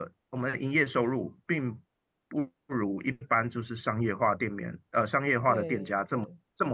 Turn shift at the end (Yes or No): No